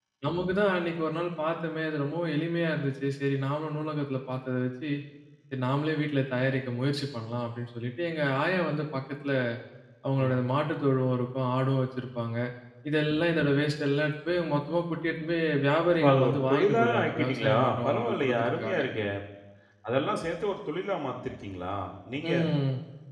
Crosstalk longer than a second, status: present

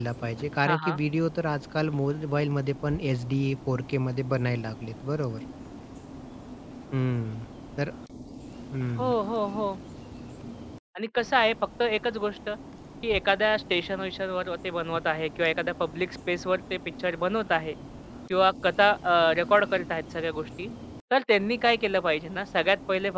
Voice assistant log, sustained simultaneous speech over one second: none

